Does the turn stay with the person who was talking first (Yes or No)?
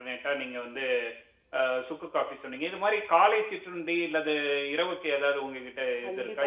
No